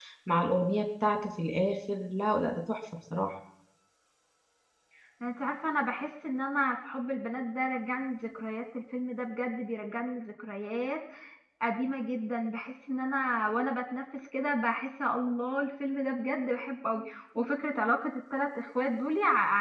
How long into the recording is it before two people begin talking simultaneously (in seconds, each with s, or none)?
none